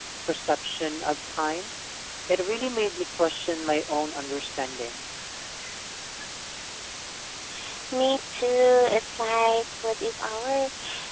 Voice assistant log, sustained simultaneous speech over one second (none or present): none